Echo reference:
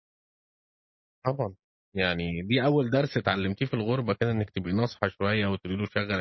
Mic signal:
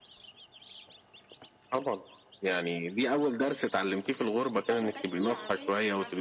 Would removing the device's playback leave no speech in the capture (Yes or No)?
No